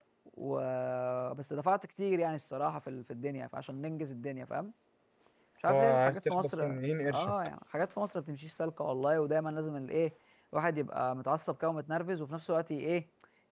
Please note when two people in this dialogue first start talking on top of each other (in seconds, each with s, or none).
5.7 s